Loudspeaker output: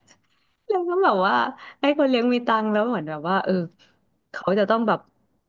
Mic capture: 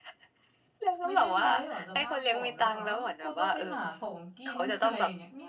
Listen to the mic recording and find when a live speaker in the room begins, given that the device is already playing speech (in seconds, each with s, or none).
1.0 s